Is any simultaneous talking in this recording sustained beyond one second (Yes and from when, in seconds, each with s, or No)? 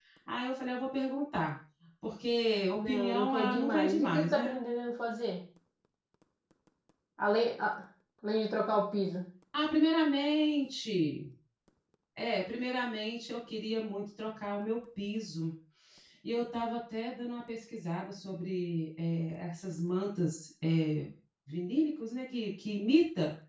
Yes, from 2.7 s